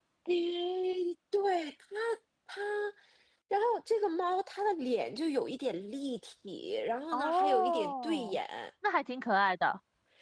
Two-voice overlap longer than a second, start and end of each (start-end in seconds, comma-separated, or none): 7.1-8.4